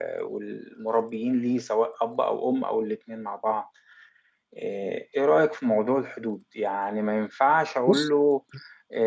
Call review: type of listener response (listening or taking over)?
listening